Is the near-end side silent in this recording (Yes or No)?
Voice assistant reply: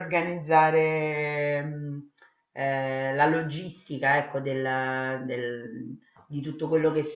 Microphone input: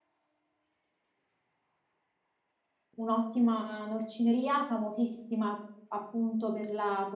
No